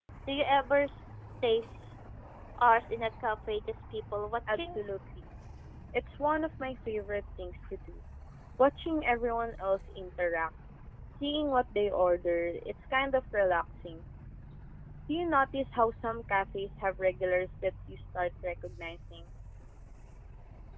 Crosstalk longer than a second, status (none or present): none